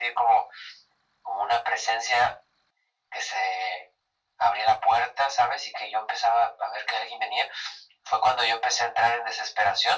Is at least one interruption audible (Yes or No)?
No